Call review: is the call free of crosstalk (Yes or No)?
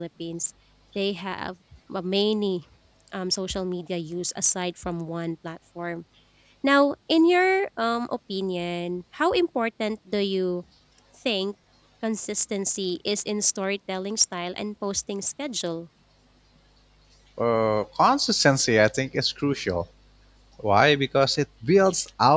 Yes